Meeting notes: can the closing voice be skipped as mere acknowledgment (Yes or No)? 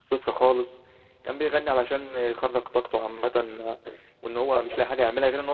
Yes